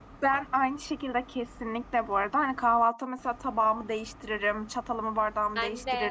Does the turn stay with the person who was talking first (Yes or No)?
Yes